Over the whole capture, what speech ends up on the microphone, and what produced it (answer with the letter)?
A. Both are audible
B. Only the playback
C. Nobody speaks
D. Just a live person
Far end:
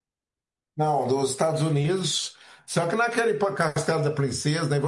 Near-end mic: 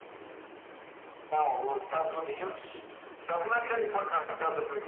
B